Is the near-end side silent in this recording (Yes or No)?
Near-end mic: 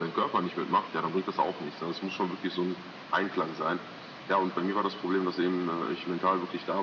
Yes